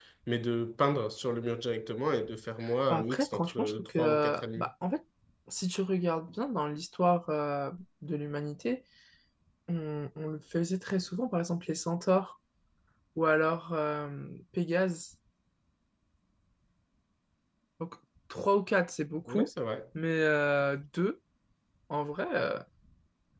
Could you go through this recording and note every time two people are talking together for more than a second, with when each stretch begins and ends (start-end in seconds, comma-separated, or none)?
2.9-4.7